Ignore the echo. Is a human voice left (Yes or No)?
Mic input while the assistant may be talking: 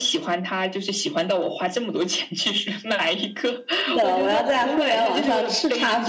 Yes